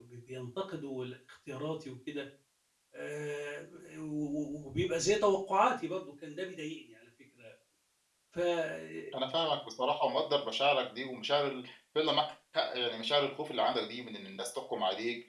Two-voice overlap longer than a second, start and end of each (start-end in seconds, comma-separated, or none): none